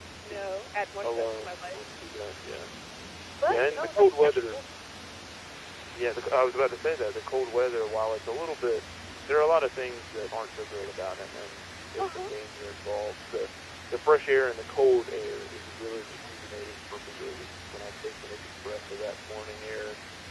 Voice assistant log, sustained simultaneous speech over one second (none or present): present